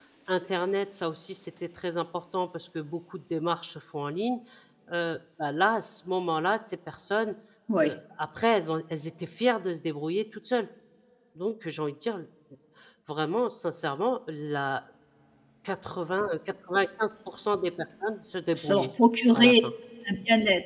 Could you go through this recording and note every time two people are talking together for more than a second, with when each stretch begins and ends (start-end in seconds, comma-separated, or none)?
none